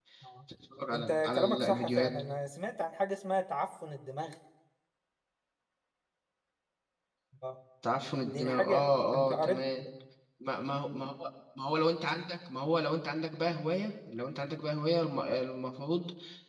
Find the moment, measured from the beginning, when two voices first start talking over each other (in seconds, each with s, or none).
0.9 s